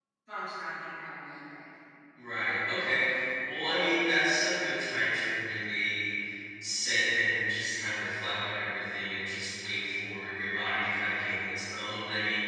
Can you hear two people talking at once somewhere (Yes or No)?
No